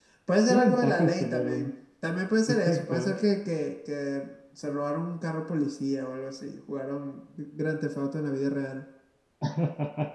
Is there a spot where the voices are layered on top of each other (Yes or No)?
Yes